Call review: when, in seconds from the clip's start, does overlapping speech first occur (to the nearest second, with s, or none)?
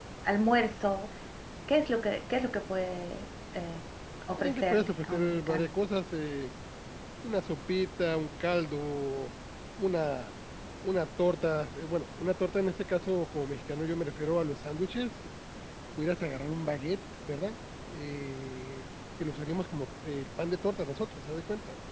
4 s